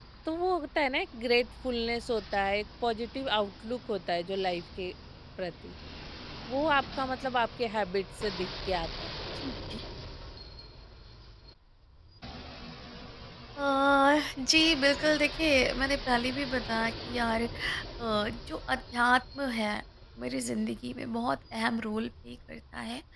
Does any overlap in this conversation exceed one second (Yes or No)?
No